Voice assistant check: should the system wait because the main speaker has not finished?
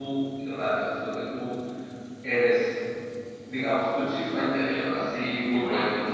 Yes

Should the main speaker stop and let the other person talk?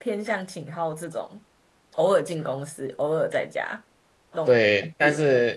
Yes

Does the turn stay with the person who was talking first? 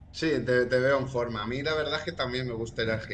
Yes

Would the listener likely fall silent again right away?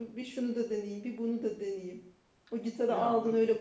Yes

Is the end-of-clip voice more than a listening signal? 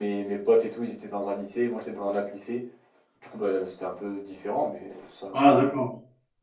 Yes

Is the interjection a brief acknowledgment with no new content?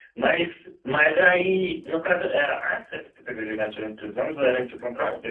No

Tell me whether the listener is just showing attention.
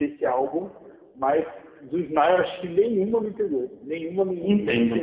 No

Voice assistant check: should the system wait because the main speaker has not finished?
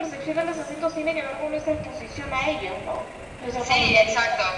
No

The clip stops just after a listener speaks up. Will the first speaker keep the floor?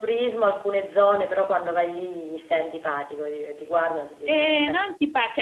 No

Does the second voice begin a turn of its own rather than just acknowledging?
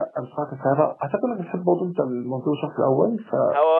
Yes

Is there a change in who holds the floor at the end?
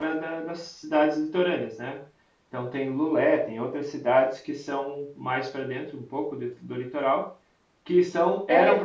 No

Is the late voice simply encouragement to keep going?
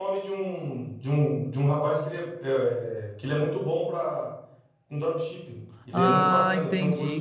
No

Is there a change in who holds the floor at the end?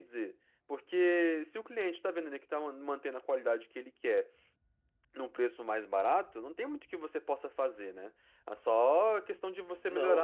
No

